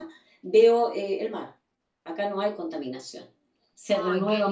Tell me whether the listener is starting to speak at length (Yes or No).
Yes